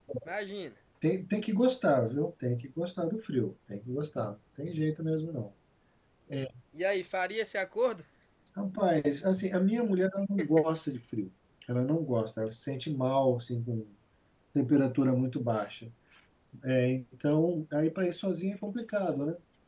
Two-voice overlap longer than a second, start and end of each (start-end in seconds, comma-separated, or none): none